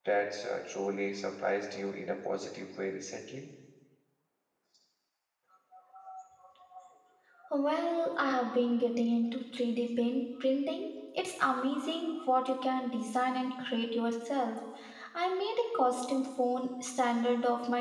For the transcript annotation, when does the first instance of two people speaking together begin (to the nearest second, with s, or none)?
none